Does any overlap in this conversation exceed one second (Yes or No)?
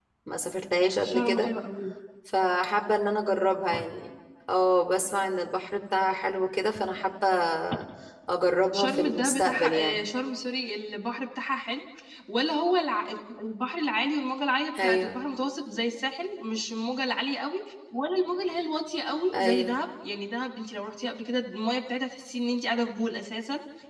Yes